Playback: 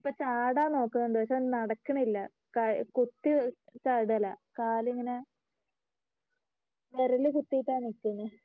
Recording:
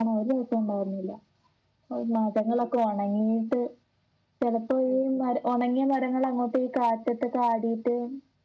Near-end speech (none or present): present